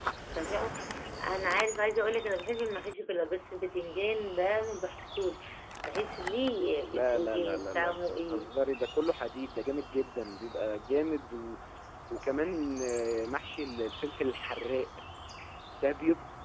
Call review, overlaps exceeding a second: present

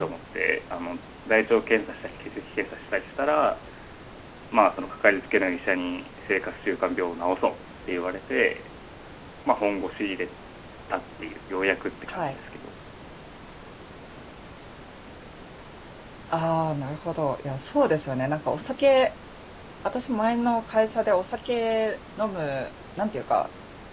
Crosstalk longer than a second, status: none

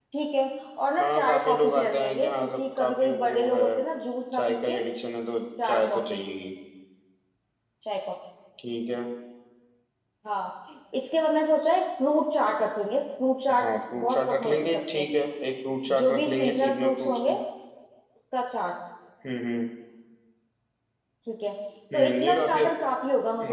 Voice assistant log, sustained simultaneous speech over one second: present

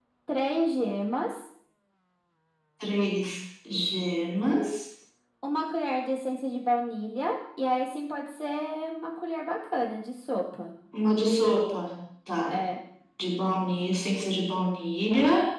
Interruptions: none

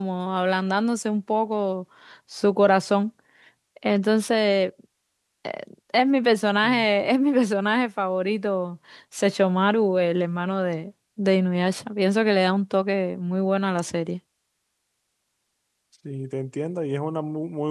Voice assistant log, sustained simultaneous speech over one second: none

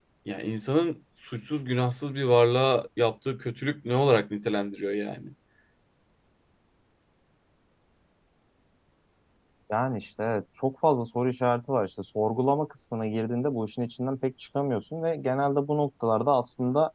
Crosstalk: none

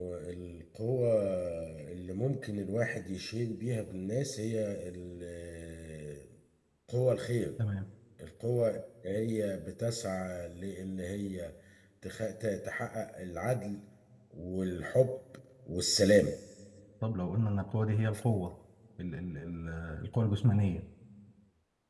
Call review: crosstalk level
none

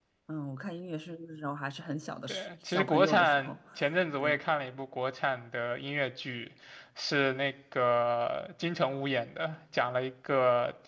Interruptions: present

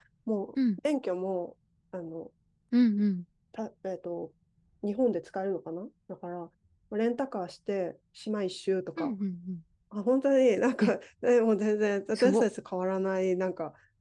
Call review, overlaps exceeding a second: none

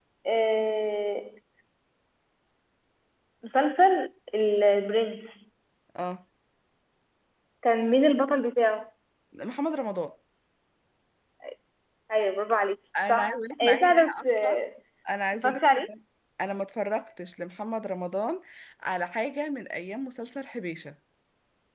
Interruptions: present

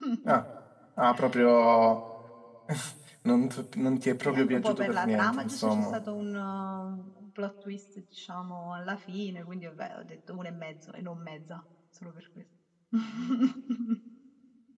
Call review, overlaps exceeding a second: present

